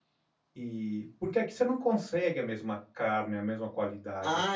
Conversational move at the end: taking over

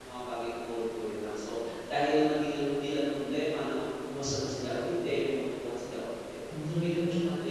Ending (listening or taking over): listening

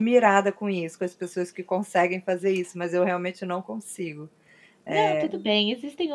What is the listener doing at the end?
taking over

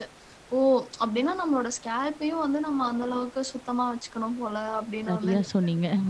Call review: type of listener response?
taking over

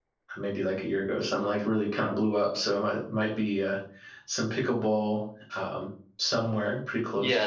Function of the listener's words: taking over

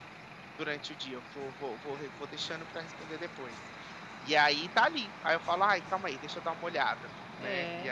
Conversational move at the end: taking over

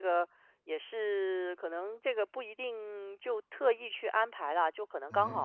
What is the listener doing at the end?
listening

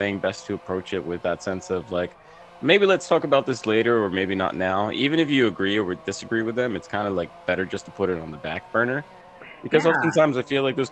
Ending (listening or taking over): listening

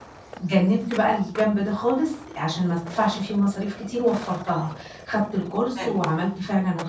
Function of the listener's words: listening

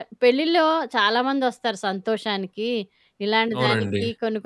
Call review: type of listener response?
listening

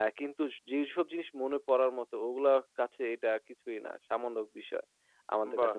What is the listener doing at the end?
listening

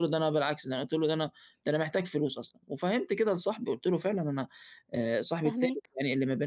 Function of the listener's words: listening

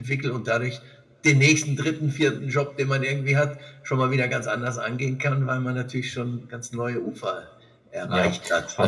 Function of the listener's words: taking over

